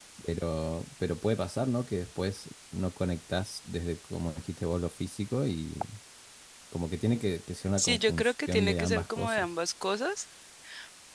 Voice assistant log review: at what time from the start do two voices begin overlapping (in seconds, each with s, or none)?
7.8 s